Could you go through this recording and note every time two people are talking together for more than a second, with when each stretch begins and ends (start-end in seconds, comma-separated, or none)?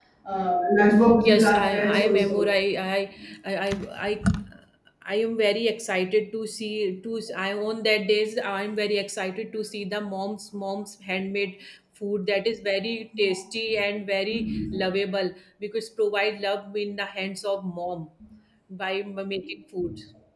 1.2-2.4